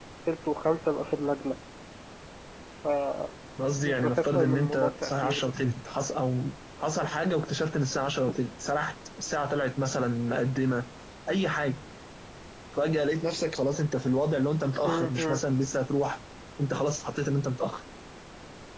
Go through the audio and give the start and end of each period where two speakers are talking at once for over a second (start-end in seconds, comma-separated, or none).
3.8-5.5